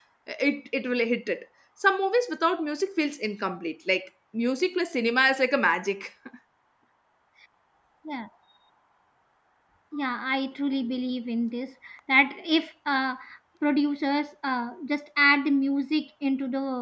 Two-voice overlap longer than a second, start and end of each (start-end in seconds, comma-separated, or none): none